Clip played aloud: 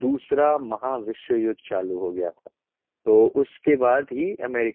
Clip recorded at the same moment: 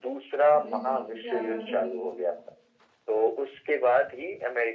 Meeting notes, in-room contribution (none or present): present